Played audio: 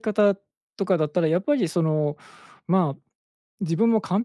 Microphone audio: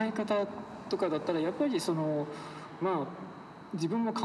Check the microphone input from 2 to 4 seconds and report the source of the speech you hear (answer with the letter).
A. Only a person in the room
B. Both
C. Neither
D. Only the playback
D